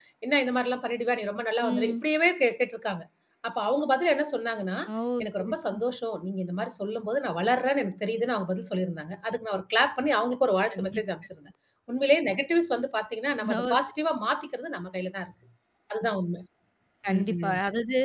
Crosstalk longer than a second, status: none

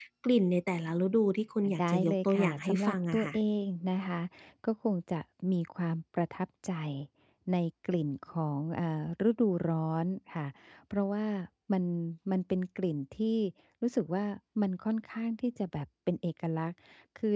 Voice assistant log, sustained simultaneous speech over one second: present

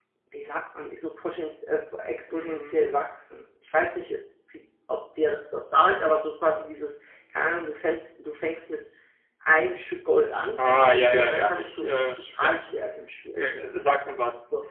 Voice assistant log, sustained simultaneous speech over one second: present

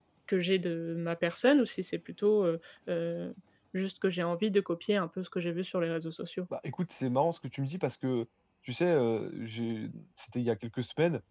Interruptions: none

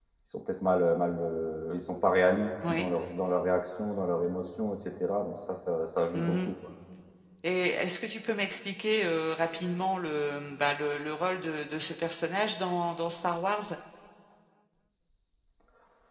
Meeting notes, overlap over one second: none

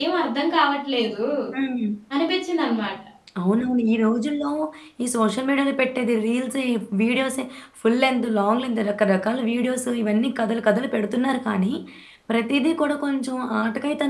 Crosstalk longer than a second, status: none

